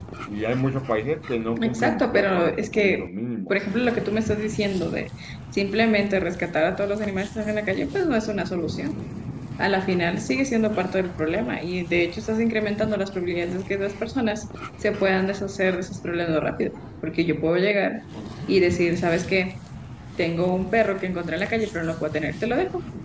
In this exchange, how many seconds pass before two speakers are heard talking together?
2 s

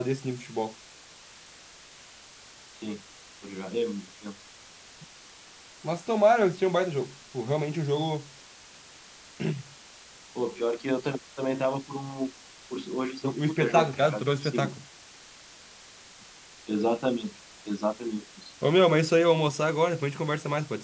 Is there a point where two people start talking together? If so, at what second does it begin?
13 s

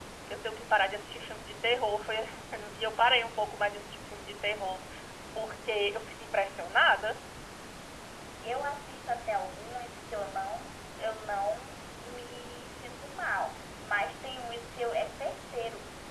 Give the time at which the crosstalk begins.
none

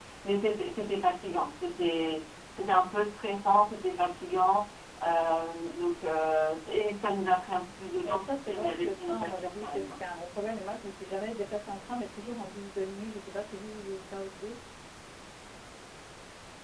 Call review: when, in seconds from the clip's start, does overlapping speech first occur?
8 s

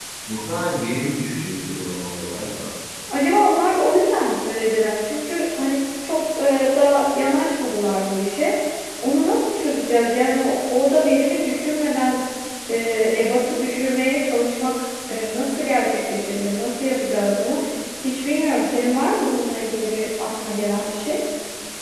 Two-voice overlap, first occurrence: none

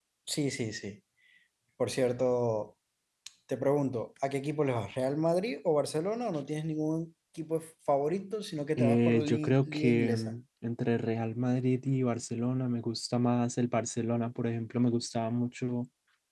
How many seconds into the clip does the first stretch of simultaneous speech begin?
9 s

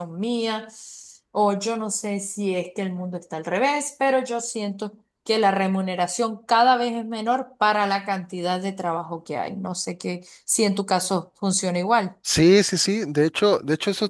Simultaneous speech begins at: none

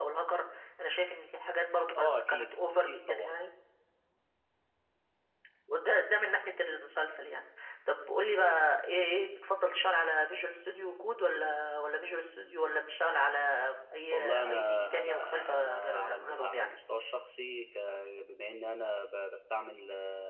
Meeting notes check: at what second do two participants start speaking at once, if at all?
2 s

